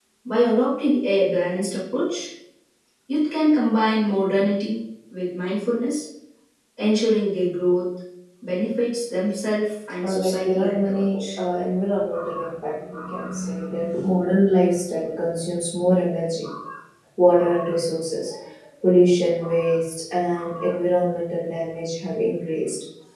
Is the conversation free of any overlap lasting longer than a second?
No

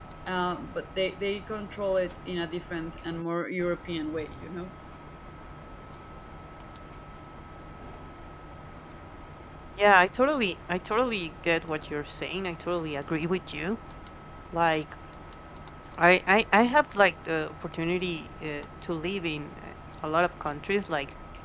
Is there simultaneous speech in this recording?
No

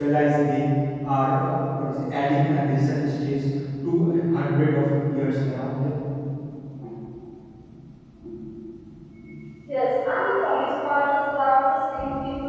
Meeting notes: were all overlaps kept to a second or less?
Yes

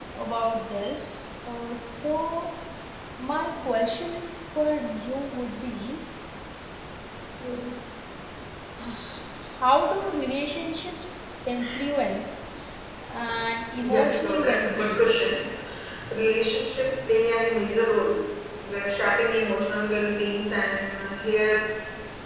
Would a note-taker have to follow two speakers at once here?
Yes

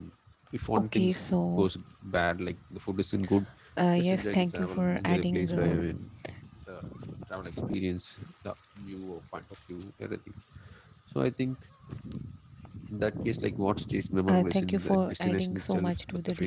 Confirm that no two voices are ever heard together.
No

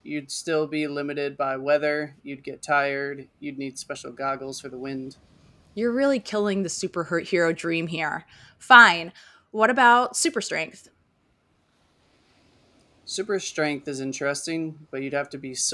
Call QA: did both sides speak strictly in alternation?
Yes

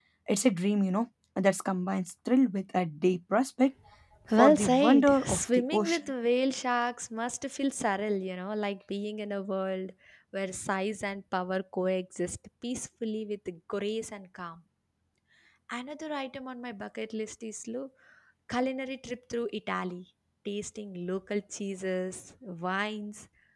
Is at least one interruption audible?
Yes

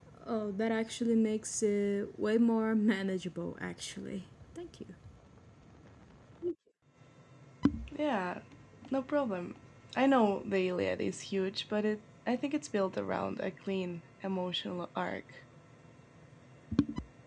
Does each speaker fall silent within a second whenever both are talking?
Yes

